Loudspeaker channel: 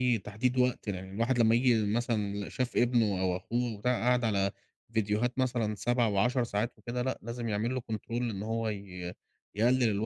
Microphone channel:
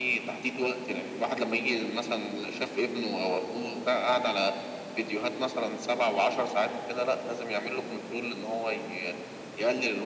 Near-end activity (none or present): none